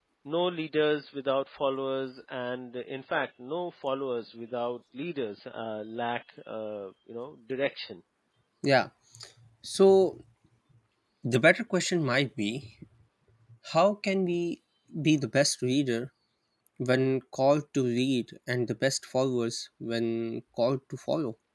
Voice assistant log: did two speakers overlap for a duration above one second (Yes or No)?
No